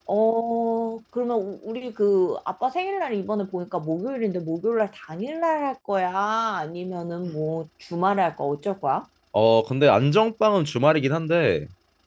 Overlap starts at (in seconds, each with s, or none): none